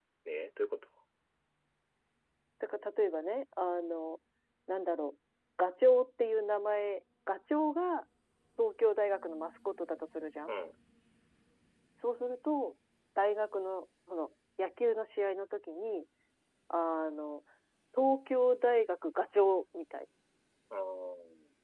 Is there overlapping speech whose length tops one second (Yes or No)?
No